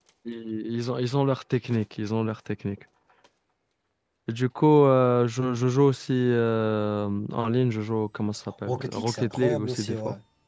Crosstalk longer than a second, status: present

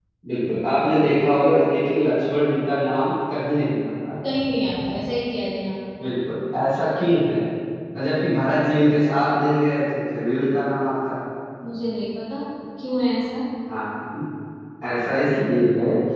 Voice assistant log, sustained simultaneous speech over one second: none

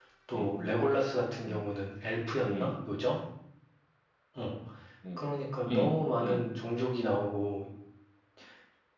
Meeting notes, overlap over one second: none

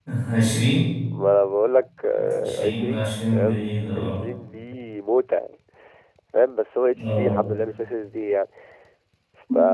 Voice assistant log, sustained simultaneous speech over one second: present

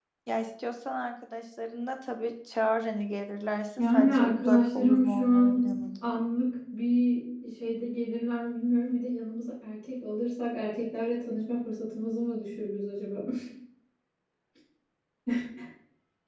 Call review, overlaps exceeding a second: present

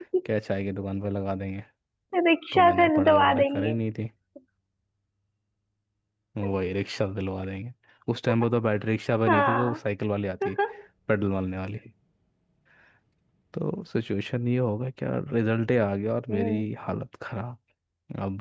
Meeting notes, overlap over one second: present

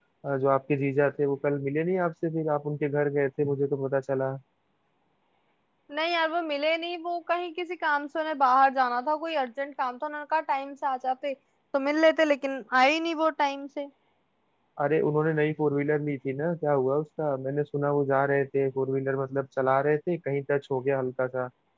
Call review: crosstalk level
none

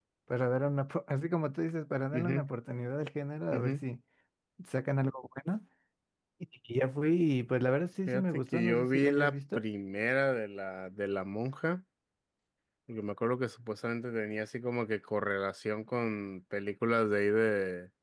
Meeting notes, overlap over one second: present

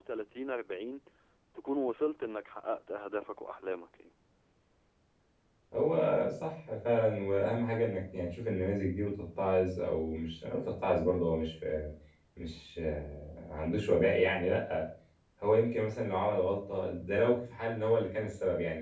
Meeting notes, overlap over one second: none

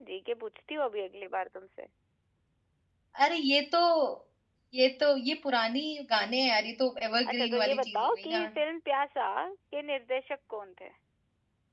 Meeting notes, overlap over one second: present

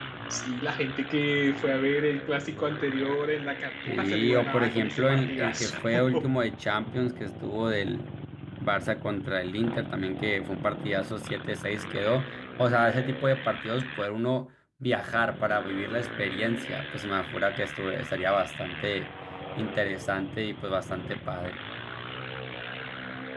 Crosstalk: present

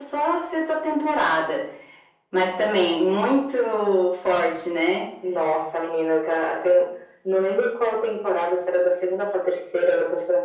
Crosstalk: none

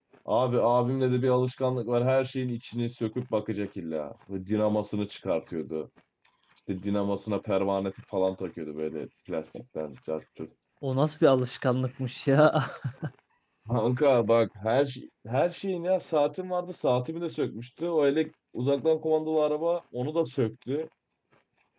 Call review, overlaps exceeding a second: none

